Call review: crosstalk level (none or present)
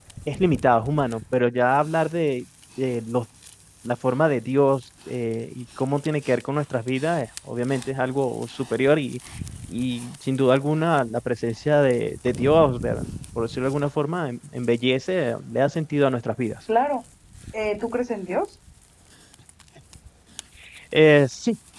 none